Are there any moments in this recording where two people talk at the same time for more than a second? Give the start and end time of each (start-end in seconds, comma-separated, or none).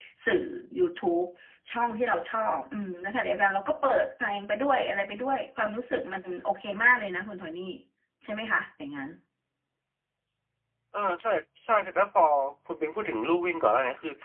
none